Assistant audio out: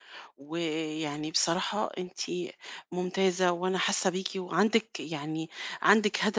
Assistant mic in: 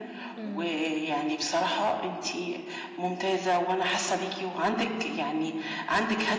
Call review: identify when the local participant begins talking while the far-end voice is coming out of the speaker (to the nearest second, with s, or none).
0 s